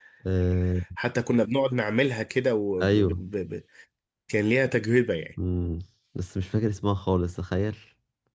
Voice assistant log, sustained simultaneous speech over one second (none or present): none